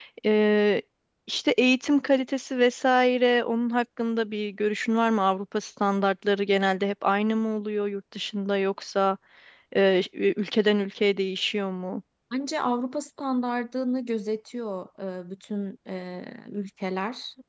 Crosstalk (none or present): none